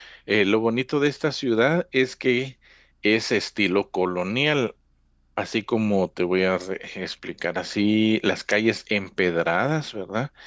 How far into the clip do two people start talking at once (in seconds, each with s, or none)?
none